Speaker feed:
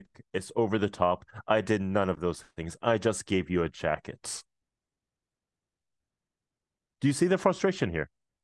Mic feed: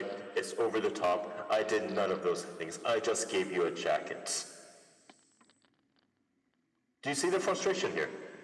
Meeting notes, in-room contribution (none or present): none